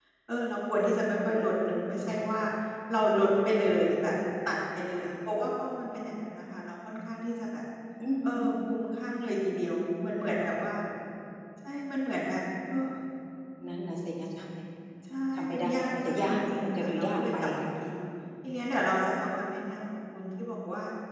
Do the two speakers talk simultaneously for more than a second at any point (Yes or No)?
Yes